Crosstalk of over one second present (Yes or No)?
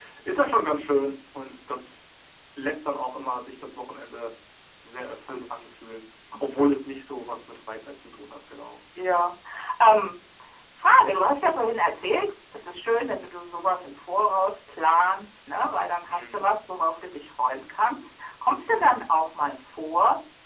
No